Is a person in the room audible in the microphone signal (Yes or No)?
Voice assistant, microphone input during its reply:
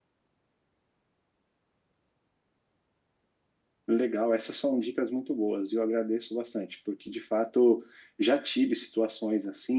Yes